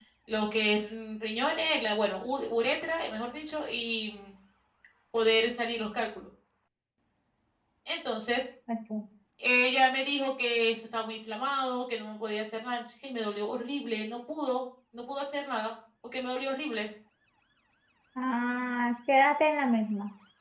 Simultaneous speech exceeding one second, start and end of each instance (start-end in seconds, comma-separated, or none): none